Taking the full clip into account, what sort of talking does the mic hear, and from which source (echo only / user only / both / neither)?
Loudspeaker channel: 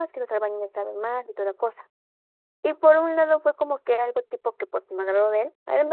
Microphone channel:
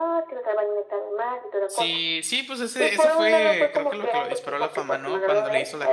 both